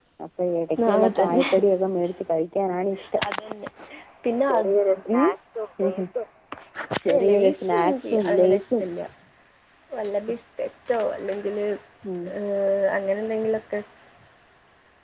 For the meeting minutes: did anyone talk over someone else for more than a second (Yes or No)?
Yes